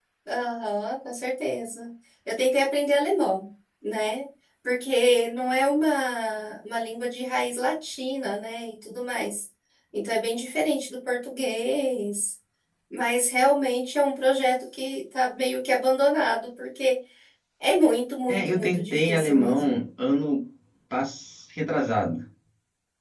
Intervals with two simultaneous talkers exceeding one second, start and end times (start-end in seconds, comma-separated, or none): 18.3-19.8